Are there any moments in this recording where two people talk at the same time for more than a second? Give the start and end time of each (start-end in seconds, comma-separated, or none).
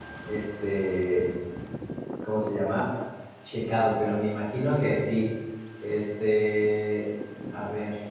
none